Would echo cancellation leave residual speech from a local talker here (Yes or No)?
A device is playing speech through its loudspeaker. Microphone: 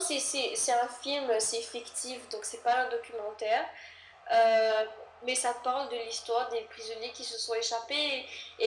No